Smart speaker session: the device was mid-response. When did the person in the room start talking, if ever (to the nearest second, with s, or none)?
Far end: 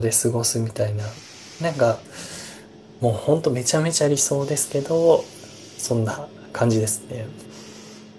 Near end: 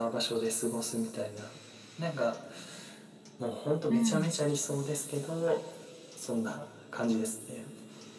4 s